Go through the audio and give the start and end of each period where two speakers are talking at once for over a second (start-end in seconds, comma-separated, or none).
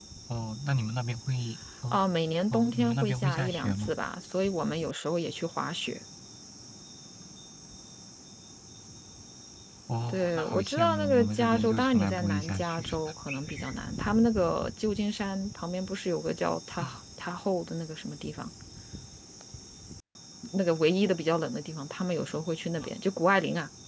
2.5-3.9, 10.1-12.9